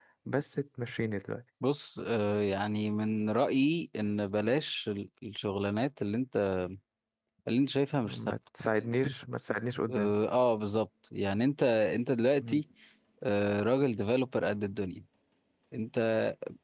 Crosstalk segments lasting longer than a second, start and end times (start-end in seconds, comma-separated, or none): none